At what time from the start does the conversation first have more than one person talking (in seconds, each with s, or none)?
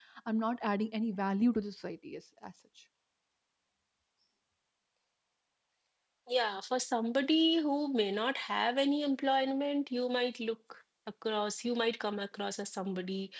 none